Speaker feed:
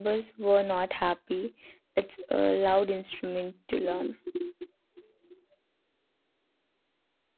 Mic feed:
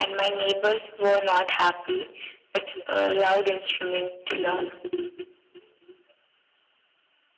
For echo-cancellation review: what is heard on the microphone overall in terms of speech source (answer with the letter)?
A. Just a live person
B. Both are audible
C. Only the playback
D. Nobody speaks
C